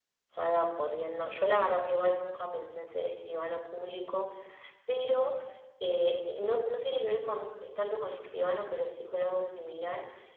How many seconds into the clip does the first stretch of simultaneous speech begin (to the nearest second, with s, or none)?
none